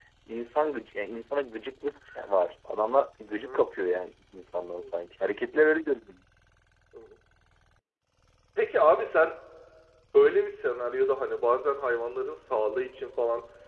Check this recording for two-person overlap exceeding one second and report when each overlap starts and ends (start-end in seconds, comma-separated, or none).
none